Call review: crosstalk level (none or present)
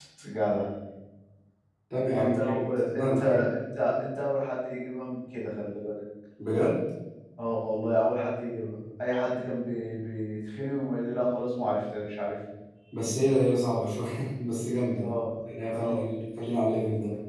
present